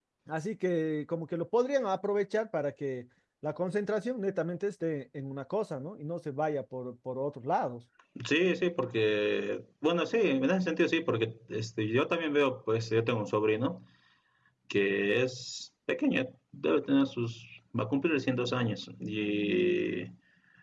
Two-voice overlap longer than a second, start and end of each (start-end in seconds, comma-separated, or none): none